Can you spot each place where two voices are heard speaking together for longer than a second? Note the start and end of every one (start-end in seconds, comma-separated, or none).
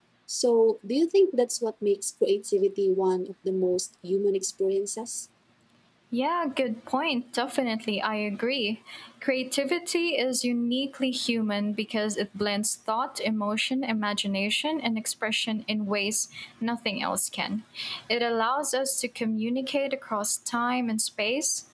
none